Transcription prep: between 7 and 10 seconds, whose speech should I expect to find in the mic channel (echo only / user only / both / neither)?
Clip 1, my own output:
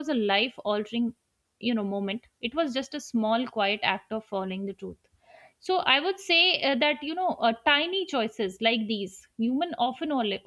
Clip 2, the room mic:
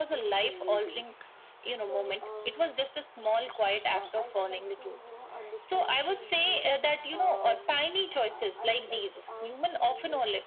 both